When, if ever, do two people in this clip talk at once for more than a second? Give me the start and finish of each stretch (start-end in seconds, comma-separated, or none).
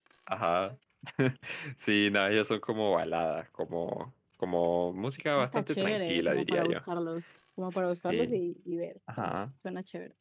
5.4-6.8